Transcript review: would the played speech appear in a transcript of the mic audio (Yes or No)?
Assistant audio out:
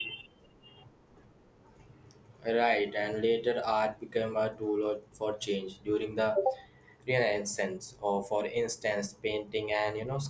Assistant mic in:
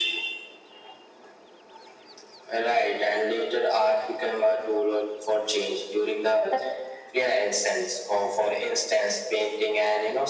Yes